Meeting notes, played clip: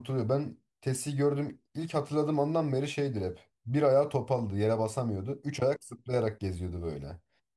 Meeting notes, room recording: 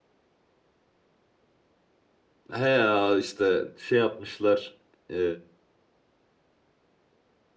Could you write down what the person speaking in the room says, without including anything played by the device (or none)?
He ya işte şey yapmışlar. ee,